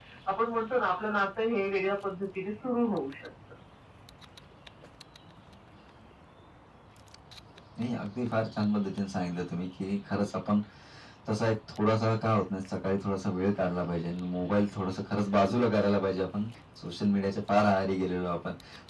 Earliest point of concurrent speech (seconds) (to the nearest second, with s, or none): none